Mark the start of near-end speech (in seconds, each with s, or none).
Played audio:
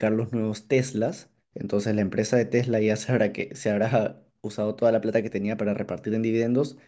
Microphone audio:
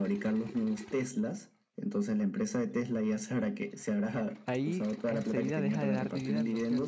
4.5 s